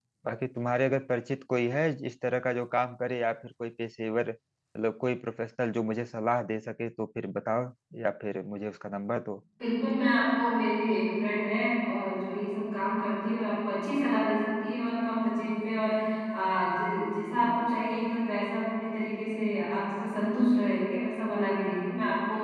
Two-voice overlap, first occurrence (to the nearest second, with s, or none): none